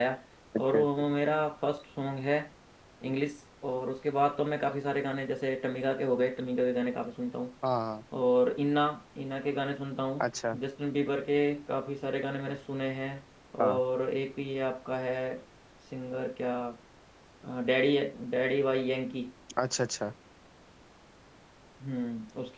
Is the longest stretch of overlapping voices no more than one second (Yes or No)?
Yes